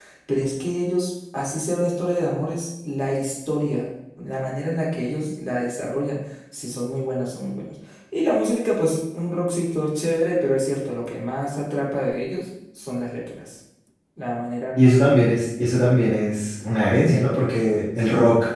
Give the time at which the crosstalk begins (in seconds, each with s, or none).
none